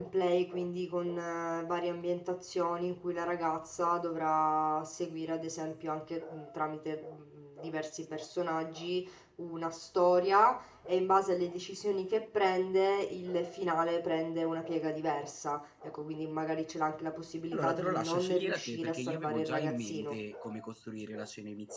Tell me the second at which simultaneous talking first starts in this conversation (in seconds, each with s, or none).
17.5 s